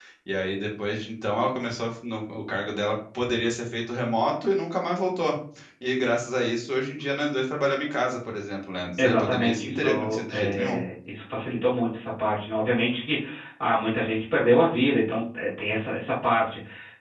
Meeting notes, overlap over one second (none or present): present